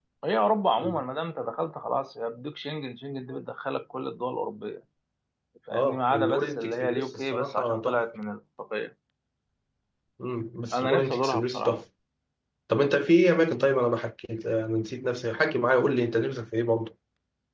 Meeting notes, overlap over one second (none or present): present